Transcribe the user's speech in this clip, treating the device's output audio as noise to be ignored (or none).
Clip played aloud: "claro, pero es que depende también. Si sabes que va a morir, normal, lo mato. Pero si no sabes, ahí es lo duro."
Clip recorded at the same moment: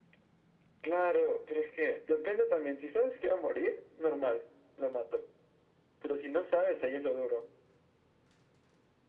none